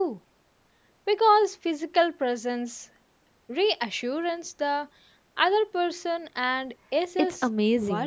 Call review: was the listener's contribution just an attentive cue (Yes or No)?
No